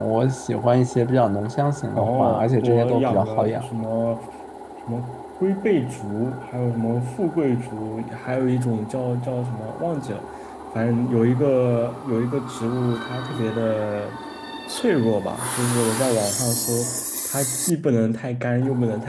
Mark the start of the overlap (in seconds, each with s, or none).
1.9 s